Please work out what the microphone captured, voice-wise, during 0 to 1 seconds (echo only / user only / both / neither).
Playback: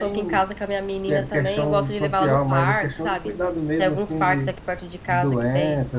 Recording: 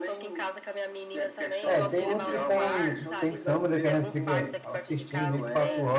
echo only